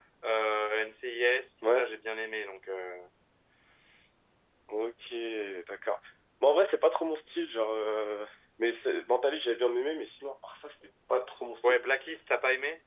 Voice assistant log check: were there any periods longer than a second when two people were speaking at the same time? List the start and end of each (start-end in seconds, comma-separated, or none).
none